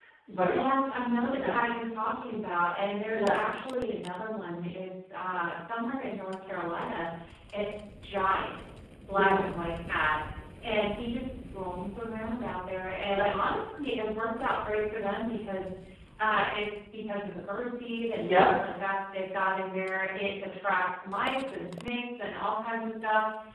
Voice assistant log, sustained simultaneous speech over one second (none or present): none